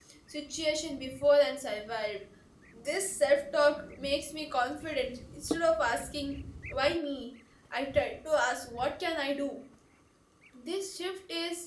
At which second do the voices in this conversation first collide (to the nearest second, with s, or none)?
none